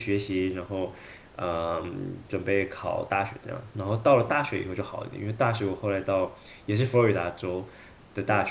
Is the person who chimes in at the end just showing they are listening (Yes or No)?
Yes